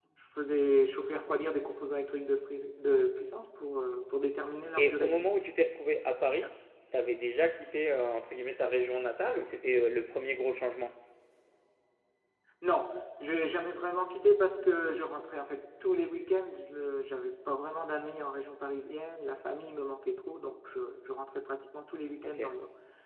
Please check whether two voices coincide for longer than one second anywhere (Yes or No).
No